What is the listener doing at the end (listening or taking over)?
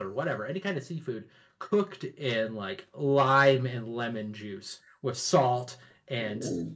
listening